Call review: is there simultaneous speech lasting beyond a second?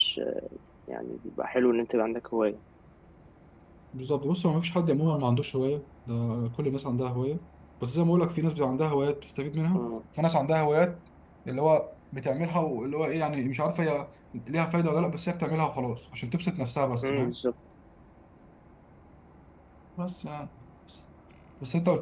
No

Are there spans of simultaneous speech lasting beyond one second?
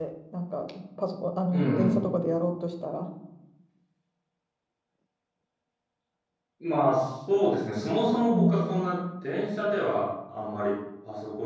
No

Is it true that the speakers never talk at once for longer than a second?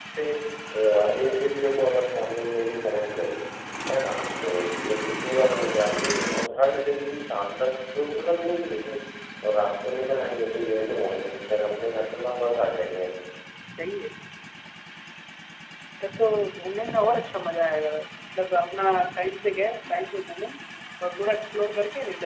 Yes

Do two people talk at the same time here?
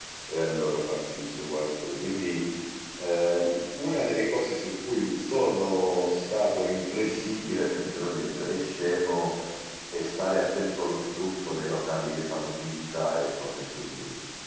No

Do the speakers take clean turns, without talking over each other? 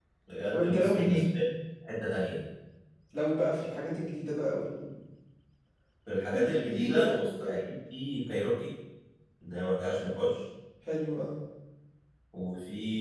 No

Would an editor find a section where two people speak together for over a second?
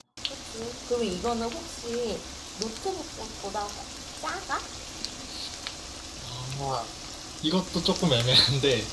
No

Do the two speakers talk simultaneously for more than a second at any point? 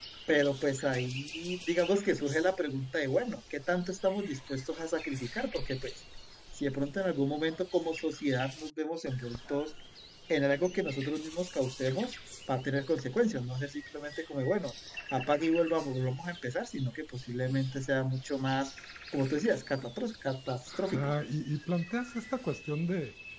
No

